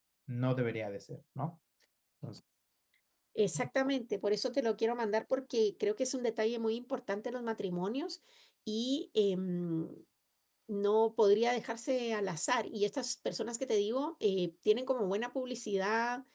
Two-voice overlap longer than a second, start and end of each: none

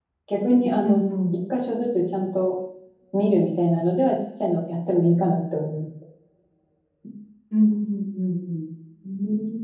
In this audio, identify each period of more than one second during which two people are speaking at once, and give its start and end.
none

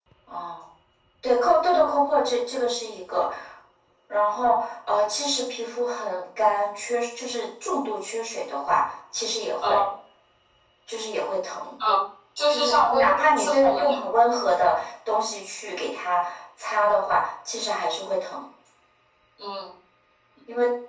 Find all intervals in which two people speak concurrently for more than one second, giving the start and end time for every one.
12.5-14.0

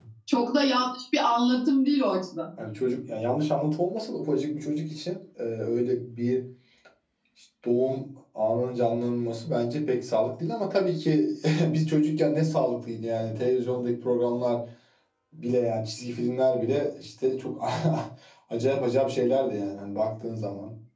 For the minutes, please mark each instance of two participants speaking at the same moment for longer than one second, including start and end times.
none

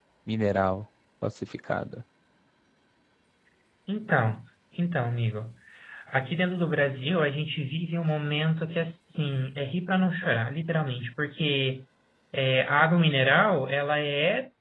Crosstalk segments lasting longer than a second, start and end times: none

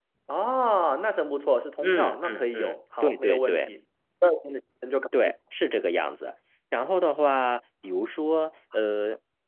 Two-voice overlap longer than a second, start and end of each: 1.8-3.7

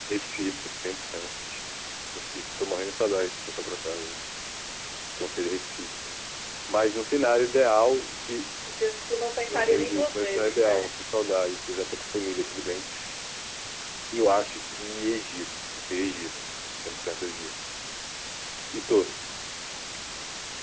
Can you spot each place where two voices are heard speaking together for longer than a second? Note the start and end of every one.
9.5-10.9

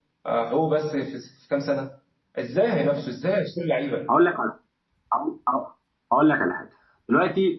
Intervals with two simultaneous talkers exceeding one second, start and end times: none

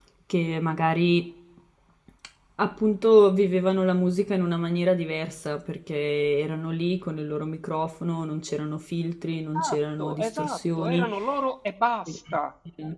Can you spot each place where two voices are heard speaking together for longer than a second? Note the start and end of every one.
9.6-11.1

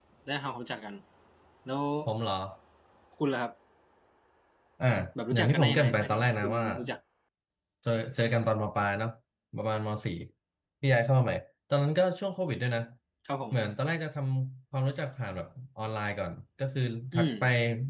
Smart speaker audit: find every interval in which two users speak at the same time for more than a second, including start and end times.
5.3-6.6

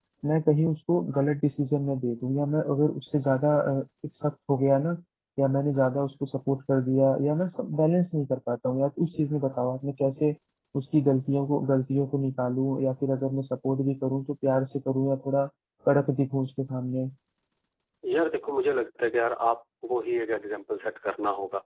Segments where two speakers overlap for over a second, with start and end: none

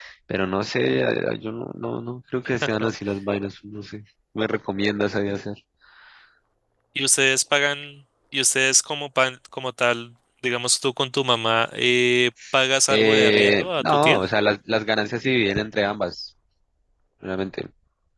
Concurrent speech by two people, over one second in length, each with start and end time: 12.9-14.2

